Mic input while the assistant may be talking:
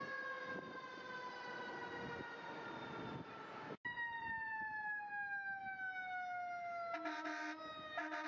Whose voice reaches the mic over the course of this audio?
neither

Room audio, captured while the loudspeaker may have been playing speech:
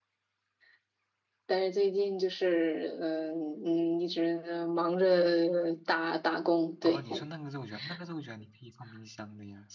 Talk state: both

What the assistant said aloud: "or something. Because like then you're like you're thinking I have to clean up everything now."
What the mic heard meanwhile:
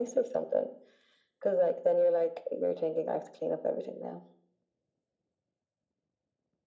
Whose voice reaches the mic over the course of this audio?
echo only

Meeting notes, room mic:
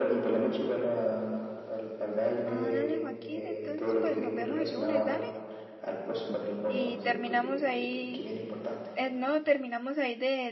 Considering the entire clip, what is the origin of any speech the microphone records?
both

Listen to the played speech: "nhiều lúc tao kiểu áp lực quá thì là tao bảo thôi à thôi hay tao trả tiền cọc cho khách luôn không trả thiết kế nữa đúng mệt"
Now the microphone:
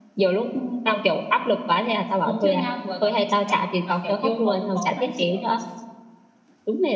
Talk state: both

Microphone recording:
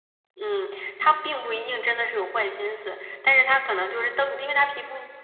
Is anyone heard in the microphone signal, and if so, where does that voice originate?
user only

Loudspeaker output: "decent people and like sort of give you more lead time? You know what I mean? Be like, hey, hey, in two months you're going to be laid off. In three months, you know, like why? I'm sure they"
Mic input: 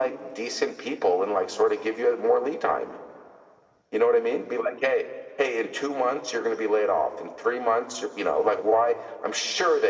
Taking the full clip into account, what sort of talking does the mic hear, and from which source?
echo only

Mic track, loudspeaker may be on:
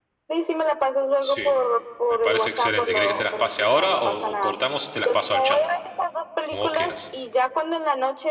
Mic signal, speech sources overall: both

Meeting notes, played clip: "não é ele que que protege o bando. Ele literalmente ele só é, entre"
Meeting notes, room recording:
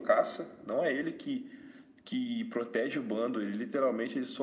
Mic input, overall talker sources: echo only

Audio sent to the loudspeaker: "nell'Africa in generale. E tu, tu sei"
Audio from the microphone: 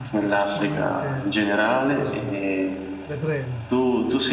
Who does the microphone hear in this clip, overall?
both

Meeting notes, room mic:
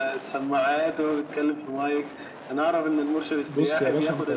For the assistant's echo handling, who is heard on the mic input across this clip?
both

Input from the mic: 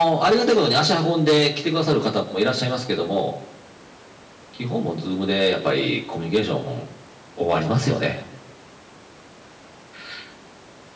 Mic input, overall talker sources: echo only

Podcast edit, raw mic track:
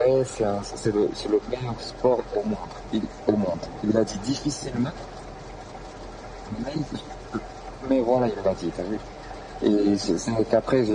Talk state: echo only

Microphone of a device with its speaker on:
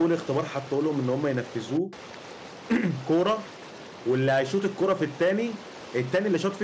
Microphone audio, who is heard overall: user only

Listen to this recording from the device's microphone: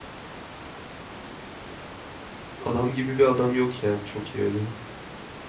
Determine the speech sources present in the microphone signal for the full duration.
user only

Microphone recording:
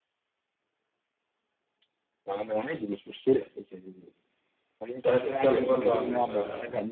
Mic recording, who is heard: both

